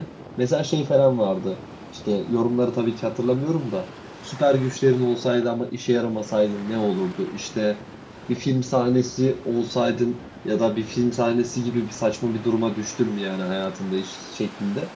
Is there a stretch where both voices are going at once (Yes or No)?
No